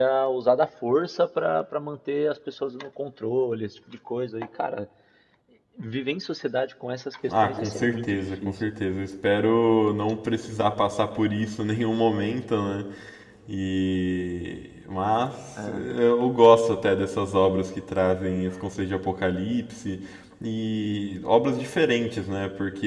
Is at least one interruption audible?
Yes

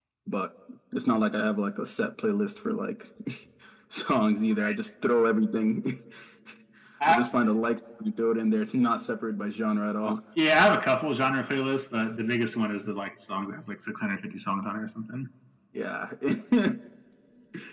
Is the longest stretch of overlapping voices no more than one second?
Yes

